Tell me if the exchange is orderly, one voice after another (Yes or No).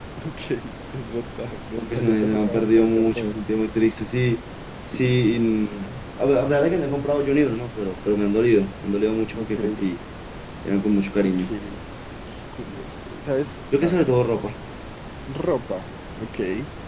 No